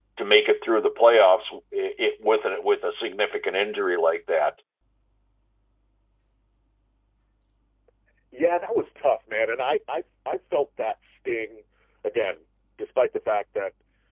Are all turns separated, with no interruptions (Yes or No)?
Yes